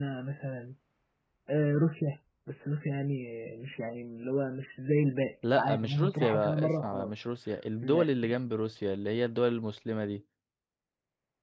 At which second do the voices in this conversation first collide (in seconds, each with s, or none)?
5.4 s